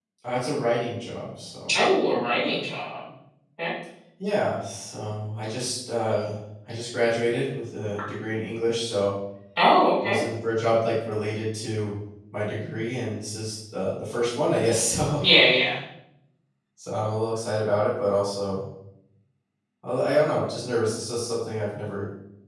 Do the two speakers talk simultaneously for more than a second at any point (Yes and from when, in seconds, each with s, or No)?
No